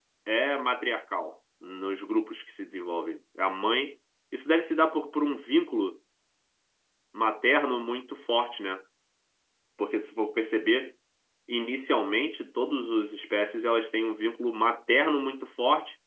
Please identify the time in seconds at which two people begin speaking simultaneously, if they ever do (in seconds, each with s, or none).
none